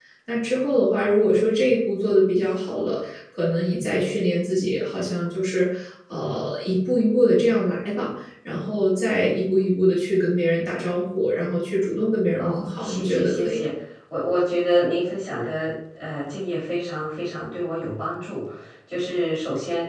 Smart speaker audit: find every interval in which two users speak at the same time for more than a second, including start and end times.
12.4-13.7

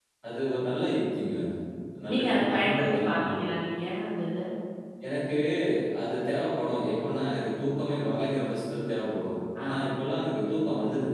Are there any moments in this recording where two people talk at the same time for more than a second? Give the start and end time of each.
2.1-3.5

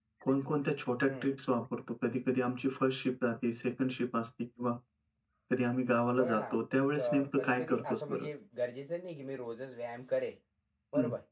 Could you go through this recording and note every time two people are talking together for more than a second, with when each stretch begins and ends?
7.0-8.3

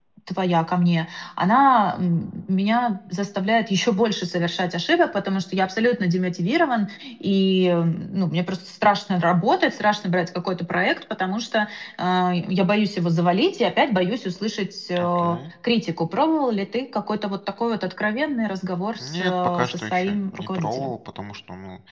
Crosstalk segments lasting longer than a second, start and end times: 19.0-20.9

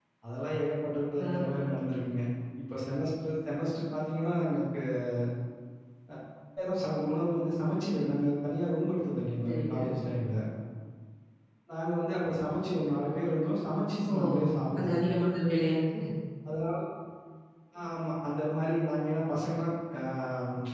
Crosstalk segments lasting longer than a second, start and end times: none

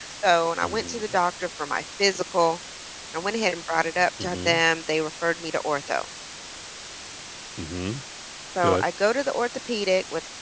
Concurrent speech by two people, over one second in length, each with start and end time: none

